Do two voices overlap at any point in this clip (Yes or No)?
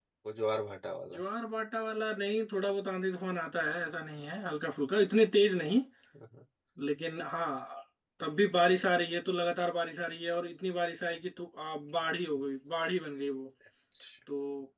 No